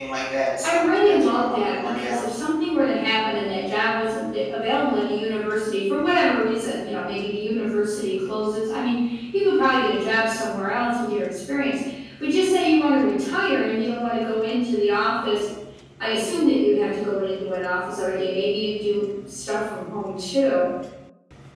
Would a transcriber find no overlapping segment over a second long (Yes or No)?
No